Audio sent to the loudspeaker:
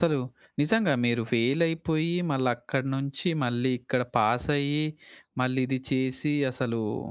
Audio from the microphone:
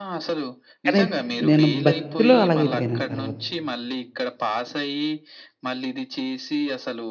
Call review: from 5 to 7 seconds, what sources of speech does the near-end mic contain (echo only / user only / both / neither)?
echo only